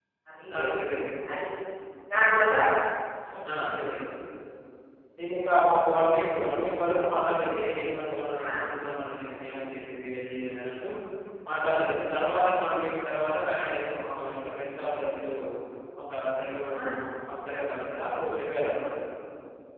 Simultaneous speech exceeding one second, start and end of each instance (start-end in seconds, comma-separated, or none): none